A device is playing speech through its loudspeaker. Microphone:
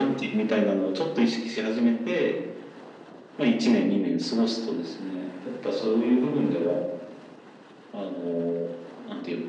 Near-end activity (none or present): none